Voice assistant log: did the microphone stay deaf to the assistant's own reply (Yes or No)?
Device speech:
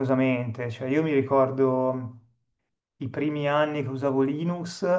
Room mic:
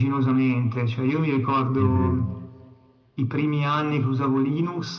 No